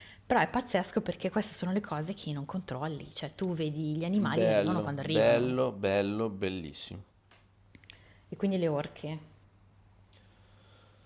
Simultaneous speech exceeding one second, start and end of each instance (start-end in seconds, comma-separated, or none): 4.3-5.5